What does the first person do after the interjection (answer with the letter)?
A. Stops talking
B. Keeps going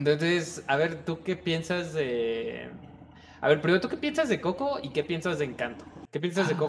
B